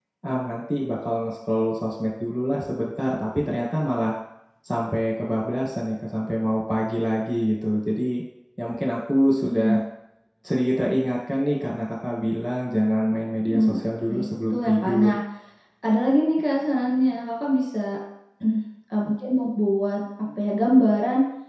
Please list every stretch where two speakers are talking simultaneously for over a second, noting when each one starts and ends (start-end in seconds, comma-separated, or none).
13.5-15.2